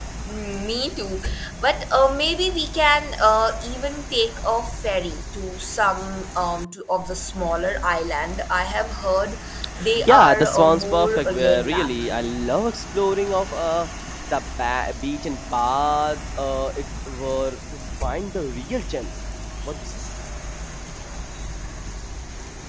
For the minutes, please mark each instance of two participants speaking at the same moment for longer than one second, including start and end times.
10.1-11.9

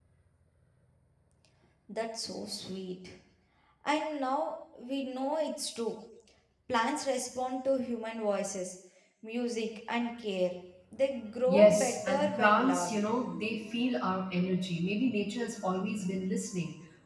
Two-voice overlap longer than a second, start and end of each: 11.5-13.0

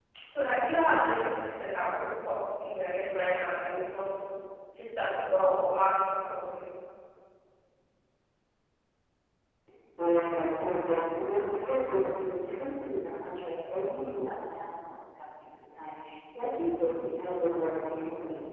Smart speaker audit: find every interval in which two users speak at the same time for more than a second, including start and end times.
none

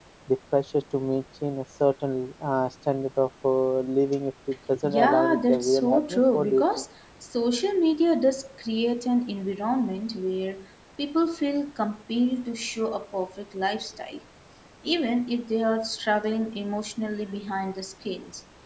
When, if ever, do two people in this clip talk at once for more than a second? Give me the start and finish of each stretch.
4.8-6.8

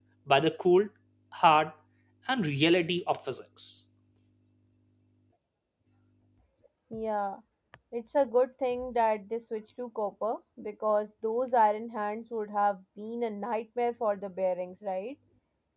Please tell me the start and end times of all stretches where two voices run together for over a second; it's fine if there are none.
none

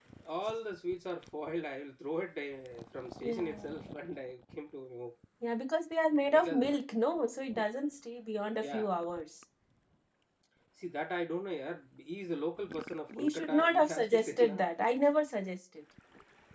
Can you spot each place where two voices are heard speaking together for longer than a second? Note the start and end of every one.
13.2-14.7

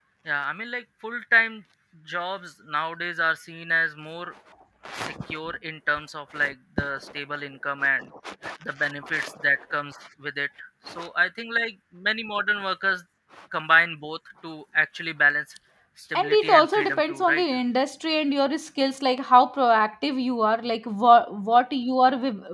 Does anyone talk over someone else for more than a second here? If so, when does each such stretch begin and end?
16.2-17.4

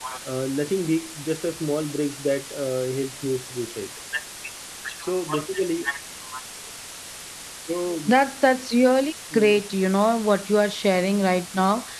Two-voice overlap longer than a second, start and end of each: none

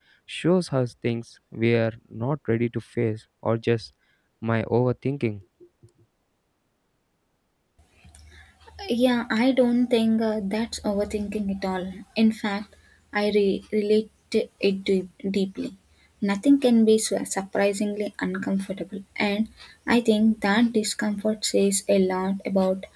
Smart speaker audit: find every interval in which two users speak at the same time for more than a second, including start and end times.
none

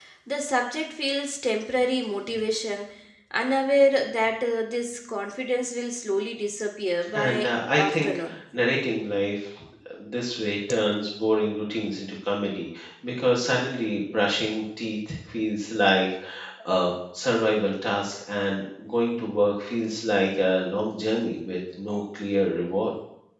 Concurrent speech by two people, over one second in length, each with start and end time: 7.1-8.4

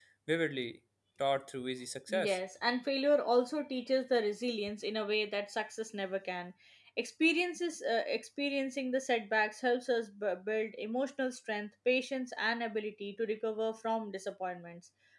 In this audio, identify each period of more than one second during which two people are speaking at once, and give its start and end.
none

